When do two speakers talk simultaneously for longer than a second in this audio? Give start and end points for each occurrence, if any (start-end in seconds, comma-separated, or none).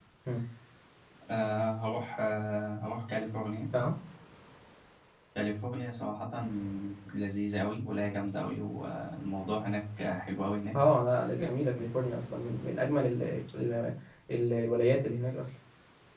none